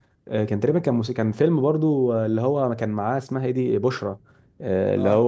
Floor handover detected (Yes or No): No